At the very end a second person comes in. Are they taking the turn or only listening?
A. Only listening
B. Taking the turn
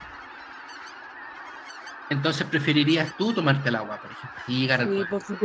B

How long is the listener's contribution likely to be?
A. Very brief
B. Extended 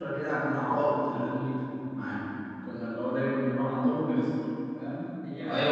B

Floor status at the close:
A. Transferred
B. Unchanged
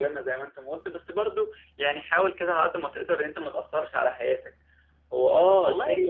B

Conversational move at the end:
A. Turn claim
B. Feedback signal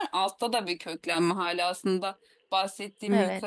B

